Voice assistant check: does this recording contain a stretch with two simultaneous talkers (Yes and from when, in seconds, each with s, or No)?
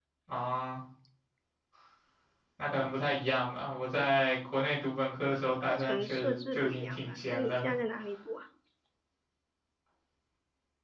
Yes, from 5.6 s